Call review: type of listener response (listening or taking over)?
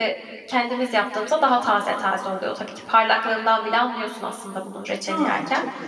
taking over